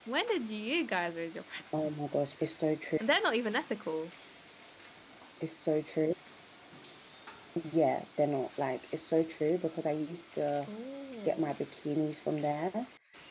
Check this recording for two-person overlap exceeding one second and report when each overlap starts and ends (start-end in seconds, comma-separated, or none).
none